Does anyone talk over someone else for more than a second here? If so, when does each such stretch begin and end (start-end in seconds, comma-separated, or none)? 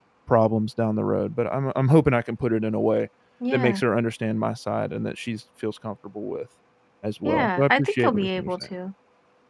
7.2-8.5